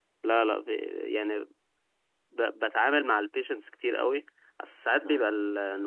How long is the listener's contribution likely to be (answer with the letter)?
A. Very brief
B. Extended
A